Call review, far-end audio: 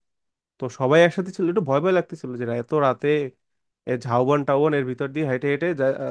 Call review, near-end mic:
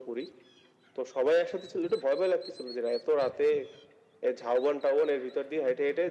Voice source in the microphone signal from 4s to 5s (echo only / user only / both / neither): echo only